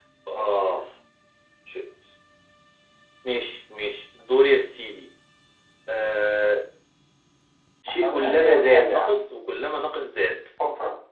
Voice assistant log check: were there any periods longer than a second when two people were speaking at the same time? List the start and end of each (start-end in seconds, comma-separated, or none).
7.9-9.2